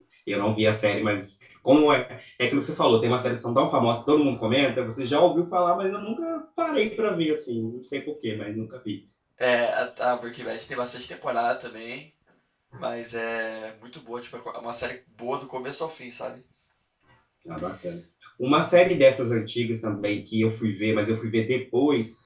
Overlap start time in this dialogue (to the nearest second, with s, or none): none